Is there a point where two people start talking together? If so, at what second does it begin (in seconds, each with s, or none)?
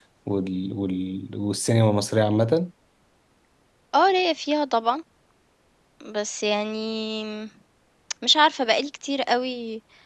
none